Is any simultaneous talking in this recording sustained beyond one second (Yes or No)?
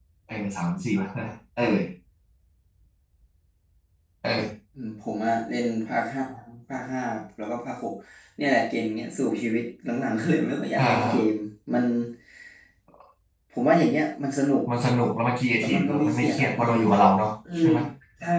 Yes